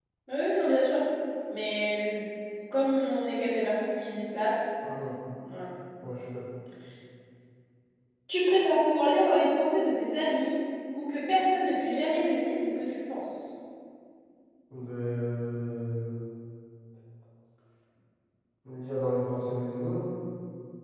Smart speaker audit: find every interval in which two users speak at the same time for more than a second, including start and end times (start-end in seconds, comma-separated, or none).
none